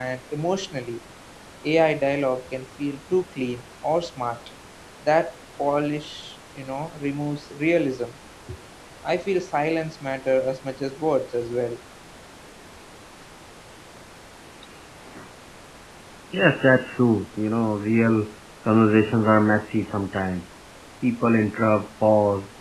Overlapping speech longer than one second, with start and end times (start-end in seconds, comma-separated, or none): none